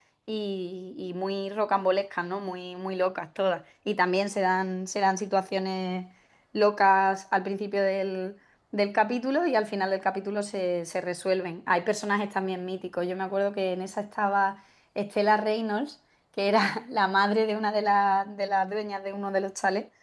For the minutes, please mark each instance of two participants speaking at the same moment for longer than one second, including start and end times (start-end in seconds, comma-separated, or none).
none